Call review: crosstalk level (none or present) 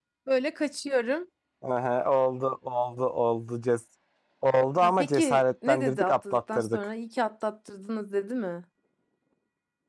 present